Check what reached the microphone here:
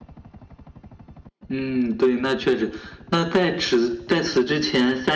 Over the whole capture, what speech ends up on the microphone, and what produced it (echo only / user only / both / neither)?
echo only